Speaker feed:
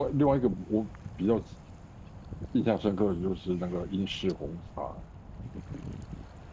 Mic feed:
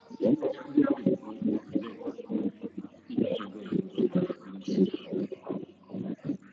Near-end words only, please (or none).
none